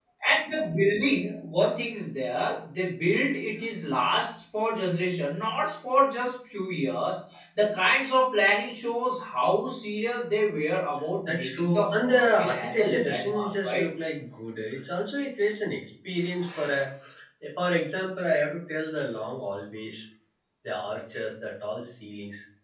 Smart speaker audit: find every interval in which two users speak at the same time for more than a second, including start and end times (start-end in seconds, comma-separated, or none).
11.3-13.9